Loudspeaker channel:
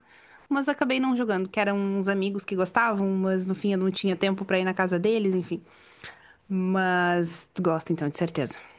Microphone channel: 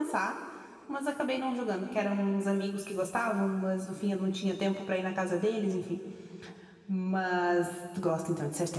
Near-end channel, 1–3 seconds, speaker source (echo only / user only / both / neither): echo only